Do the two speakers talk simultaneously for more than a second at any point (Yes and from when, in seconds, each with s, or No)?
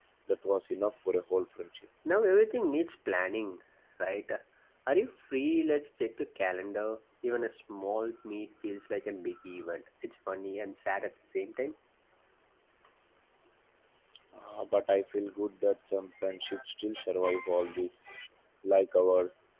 No